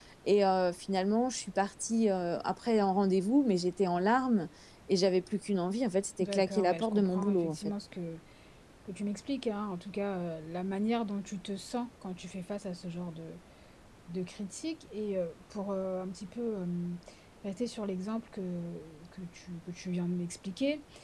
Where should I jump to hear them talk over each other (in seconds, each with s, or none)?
6.2 s